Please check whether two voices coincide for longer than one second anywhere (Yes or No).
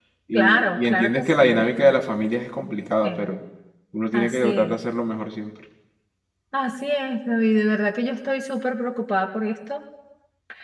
Yes